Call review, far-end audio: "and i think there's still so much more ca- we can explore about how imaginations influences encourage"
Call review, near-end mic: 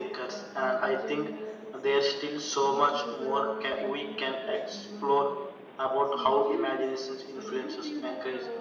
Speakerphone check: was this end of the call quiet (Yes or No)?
No